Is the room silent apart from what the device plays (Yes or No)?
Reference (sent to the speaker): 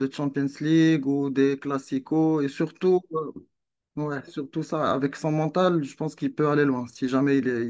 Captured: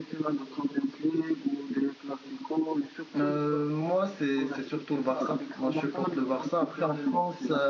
No